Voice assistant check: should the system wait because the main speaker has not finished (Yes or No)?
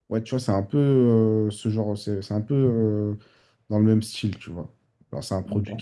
Yes